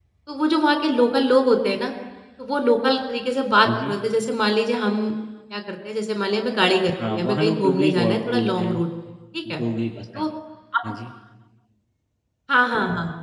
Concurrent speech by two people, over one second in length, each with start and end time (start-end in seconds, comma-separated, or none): 7.0-8.8